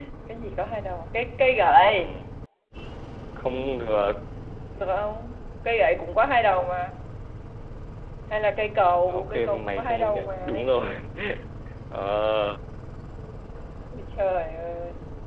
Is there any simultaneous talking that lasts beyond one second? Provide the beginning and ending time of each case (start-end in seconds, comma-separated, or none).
9.1-10.6